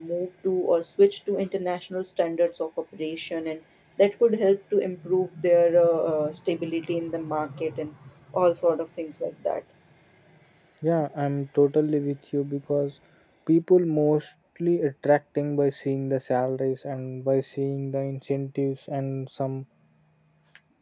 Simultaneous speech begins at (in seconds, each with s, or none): none